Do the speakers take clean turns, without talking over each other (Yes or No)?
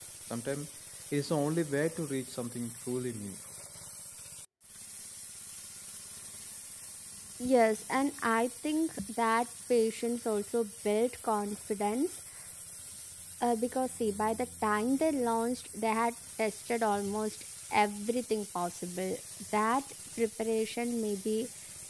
Yes